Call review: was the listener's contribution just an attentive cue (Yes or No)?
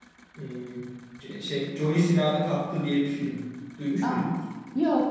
No